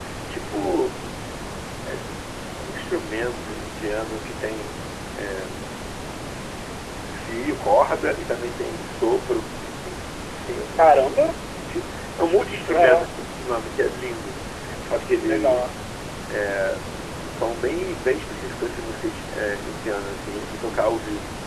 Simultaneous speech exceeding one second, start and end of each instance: none

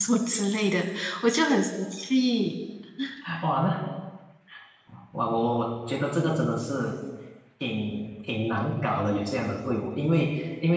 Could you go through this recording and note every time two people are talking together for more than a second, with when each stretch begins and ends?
none

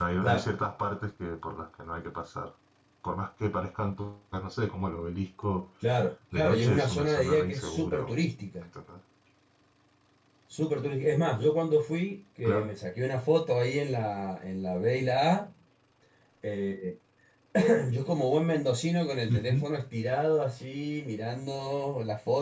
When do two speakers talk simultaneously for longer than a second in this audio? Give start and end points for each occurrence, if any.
6.3-8.2

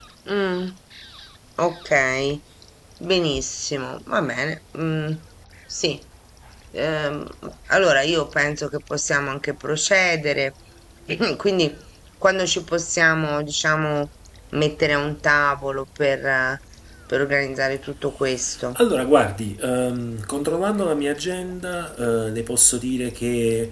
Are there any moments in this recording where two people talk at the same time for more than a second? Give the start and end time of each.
none

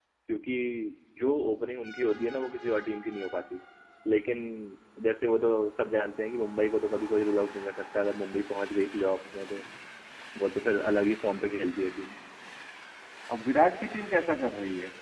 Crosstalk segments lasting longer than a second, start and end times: none

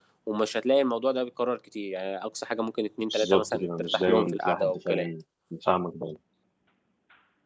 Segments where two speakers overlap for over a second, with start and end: 3.1-5.1

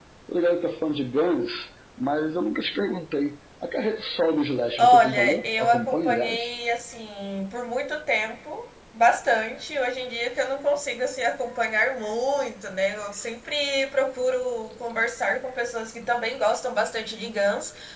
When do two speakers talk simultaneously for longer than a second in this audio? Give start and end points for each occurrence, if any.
4.8-6.5

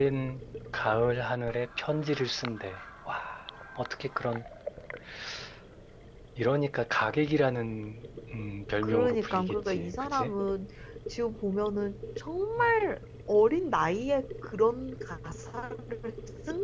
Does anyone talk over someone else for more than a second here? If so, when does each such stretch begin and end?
8.8-10.3

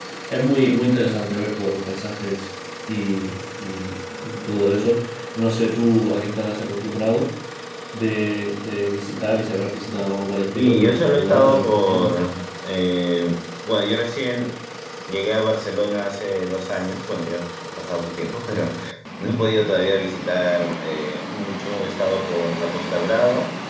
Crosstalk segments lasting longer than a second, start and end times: 10.6-12.1

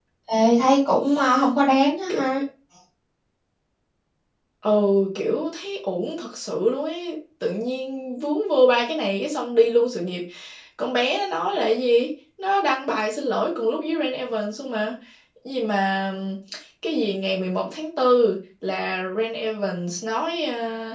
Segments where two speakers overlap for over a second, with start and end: none

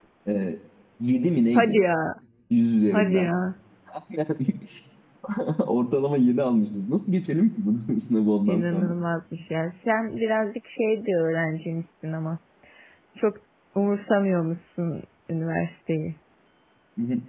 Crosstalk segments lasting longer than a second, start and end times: none

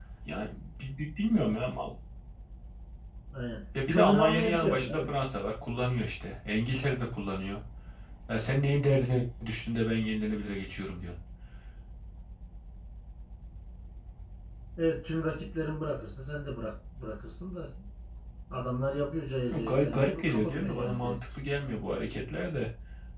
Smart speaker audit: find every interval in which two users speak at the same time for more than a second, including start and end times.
3.9-5.1, 19.5-21.1

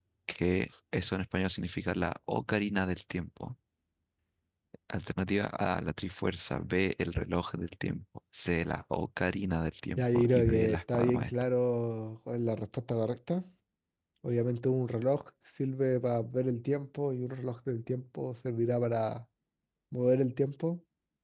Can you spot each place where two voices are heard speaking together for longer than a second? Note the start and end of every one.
10.0-11.3

